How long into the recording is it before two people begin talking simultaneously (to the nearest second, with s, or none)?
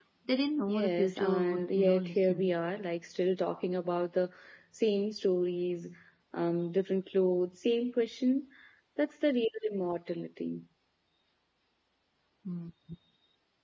1 s